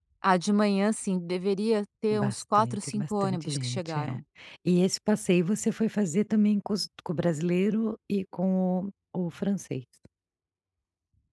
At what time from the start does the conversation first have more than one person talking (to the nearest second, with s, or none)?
2 s